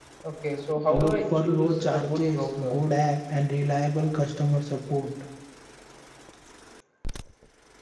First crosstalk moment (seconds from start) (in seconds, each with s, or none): 0.9 s